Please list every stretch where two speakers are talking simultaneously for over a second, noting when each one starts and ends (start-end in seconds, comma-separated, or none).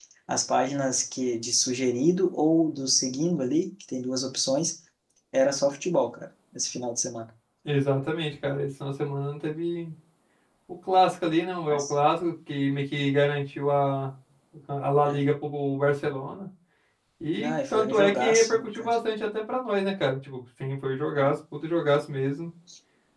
17.4-18.9